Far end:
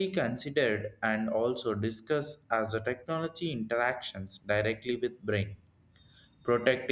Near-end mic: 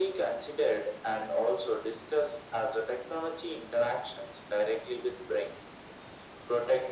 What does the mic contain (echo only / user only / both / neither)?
echo only